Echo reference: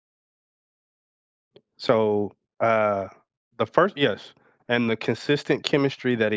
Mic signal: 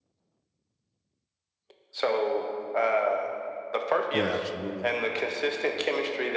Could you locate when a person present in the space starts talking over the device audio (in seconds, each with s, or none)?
4.1 s